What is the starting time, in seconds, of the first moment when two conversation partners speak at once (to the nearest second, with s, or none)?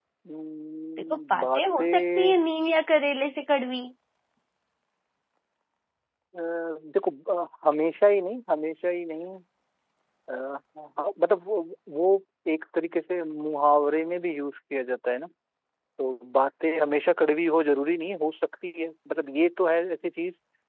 1 s